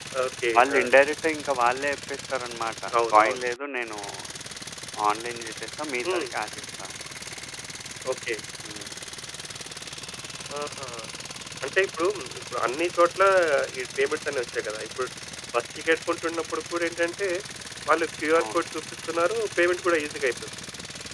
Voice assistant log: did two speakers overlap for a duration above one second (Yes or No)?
No